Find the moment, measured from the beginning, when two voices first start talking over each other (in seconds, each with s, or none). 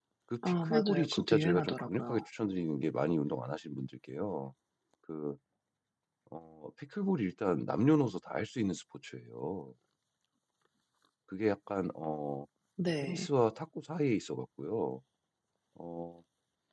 0.6 s